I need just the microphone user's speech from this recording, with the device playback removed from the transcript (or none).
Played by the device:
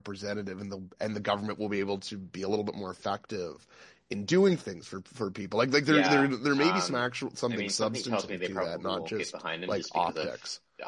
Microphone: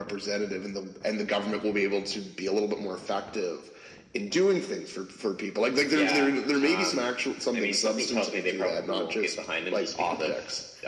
none